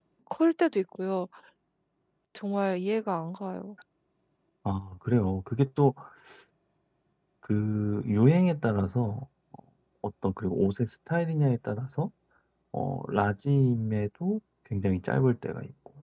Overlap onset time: none

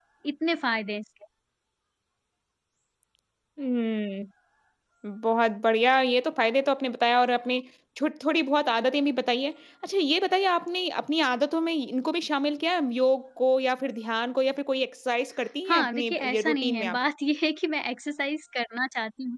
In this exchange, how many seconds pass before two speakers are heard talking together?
15.7 s

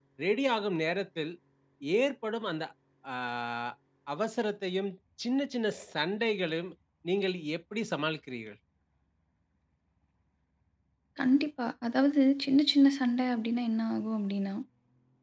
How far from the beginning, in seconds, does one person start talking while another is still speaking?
none

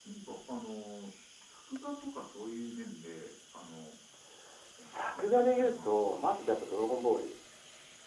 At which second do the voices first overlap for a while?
4.8 s

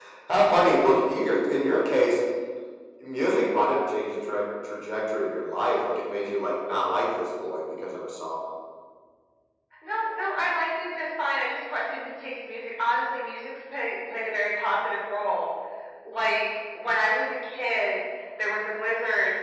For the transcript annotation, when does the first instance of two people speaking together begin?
none

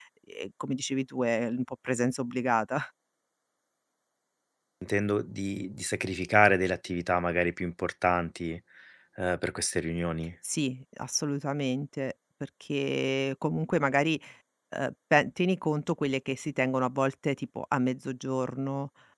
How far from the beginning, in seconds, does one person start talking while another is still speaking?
none

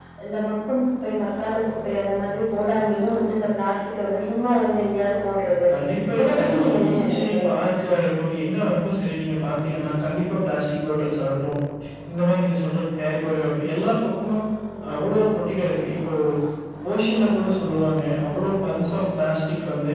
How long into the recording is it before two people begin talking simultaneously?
6.2 s

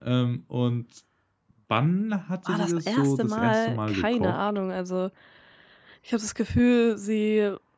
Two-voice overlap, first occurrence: 2.5 s

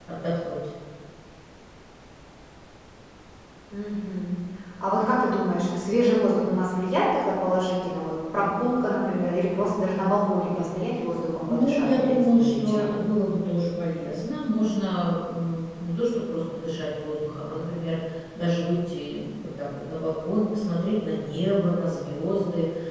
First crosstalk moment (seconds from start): 11.4 s

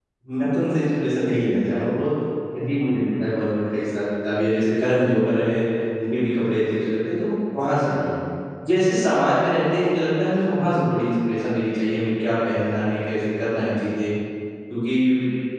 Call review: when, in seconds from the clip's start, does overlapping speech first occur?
none

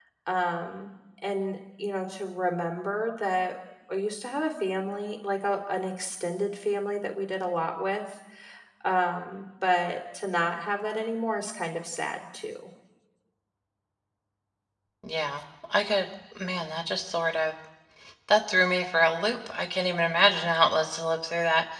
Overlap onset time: none

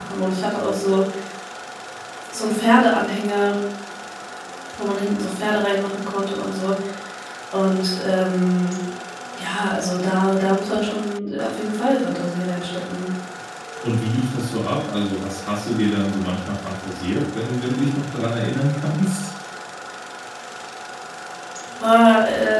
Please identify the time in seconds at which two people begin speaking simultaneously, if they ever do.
none

